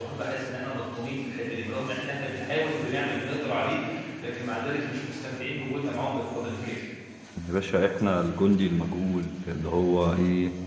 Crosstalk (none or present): none